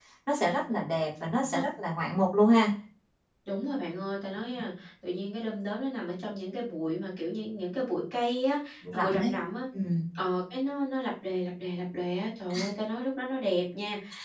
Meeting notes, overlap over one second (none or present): none